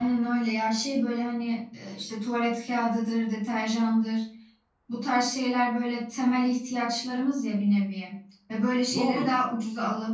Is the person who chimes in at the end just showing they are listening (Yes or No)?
Yes